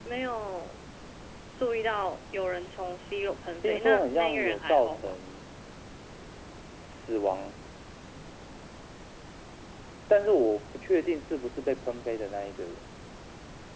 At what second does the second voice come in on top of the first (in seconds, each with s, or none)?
3.6 s